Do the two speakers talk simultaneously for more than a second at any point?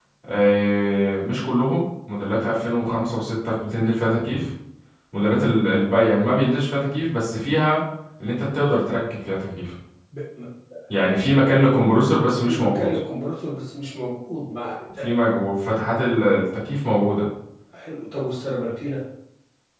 No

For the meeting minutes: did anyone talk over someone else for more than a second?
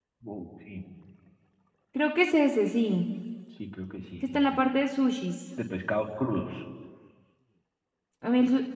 No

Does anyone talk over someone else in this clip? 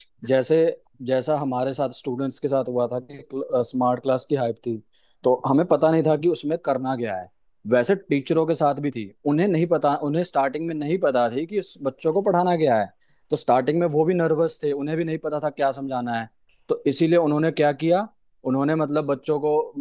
No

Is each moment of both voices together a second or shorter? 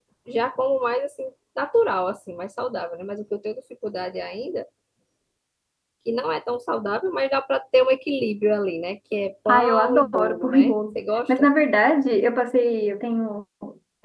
No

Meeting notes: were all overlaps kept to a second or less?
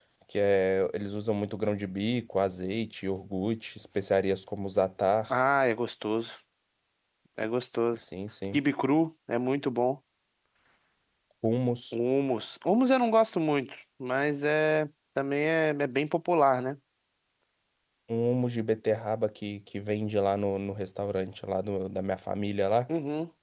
Yes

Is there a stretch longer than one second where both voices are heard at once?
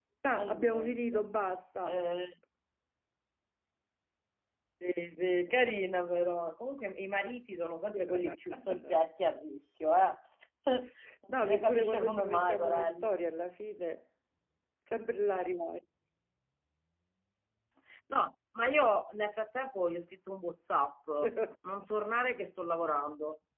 Yes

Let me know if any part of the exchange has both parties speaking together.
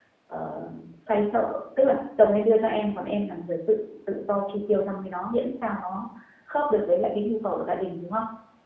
No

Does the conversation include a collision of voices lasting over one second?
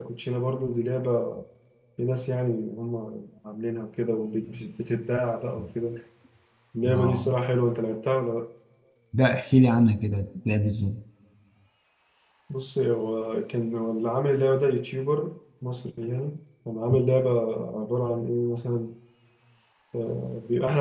No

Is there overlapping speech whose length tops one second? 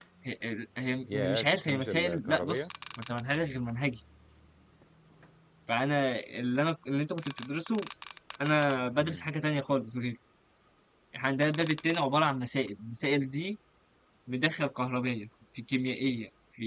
Yes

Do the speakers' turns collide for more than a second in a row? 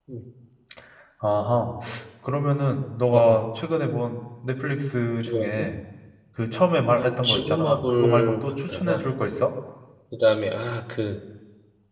Yes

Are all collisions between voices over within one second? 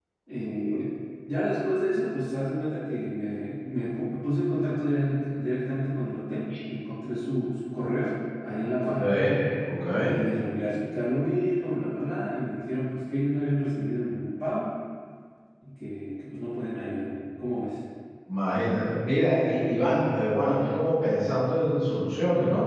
Yes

